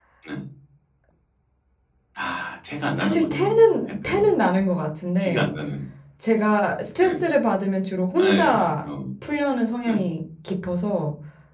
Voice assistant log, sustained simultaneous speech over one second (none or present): present